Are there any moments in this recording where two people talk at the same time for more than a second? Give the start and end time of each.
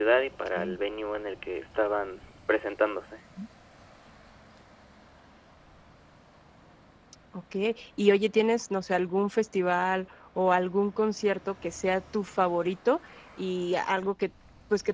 none

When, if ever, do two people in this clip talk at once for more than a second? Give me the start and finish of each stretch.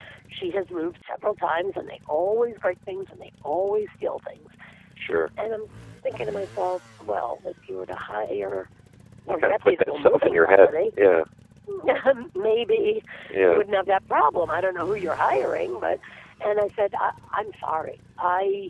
9.3-10.7

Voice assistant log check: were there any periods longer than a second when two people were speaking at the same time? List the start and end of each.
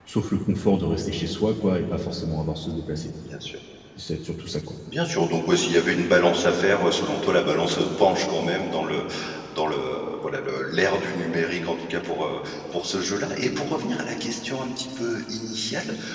none

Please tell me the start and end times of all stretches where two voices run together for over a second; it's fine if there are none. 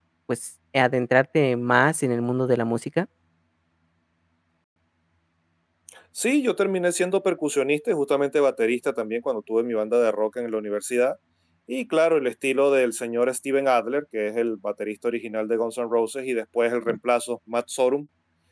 none

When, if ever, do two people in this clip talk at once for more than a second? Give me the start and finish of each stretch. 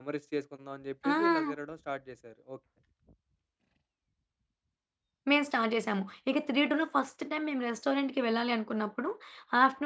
none

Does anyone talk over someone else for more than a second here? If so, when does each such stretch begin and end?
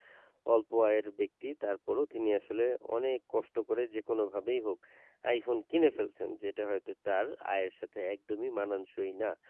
none

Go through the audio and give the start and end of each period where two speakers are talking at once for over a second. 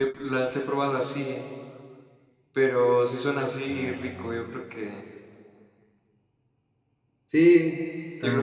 none

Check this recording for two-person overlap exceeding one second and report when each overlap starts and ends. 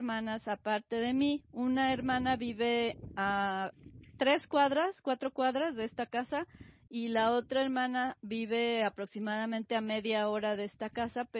none

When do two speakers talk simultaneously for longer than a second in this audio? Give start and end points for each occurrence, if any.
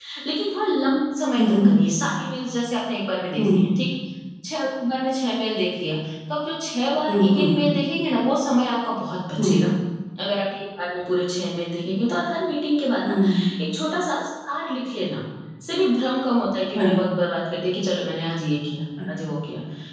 none

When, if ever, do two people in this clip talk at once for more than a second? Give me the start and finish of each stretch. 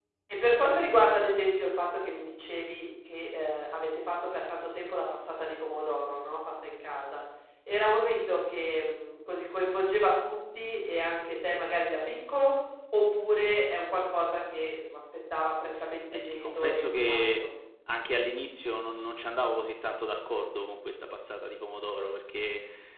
16.1-17.5

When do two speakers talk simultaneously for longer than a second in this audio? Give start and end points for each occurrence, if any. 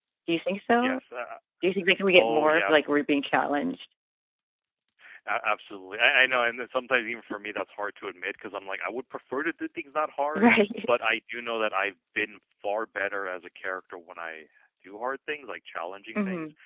none

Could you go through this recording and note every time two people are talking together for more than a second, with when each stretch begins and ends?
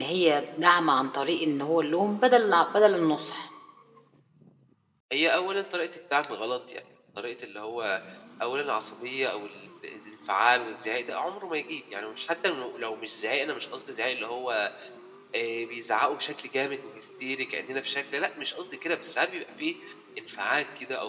none

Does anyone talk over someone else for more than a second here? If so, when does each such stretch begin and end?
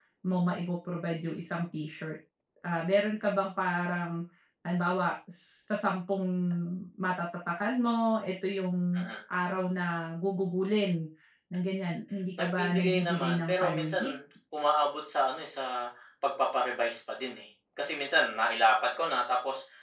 12.4-14.1

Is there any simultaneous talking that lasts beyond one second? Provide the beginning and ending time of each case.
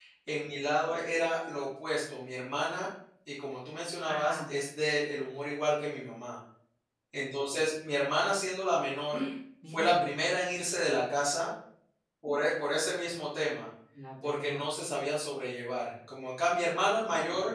none

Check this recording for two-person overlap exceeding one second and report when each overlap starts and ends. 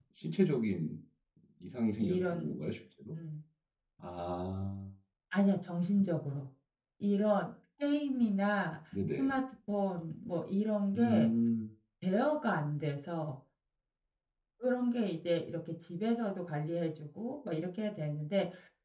none

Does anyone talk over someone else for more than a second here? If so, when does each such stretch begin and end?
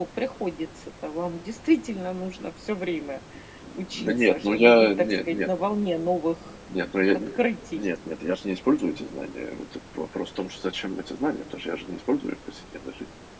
4.0-5.5

